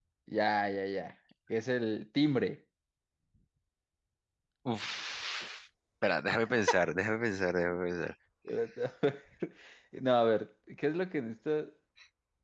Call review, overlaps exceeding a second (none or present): none